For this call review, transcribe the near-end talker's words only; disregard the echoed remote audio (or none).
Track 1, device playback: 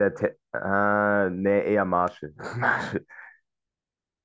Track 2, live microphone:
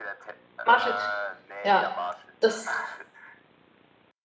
Marshall. Ja, das,